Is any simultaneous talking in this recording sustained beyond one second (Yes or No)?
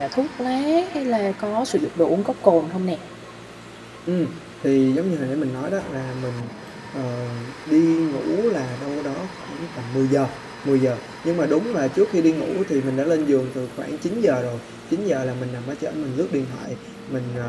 No